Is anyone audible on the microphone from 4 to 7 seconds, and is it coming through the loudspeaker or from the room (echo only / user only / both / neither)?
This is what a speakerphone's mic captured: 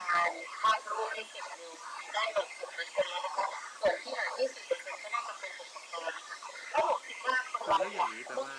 echo only